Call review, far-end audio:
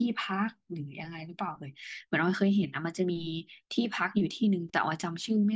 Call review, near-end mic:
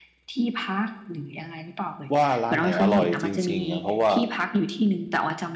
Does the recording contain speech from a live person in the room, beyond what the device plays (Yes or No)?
Yes